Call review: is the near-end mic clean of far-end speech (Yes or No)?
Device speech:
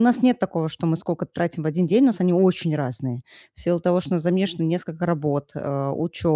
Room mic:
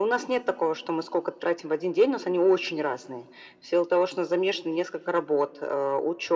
No